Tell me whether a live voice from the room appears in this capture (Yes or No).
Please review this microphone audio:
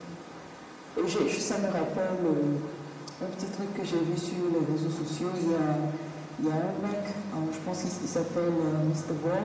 No